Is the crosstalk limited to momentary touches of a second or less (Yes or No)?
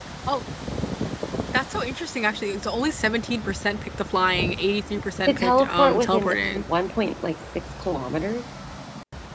No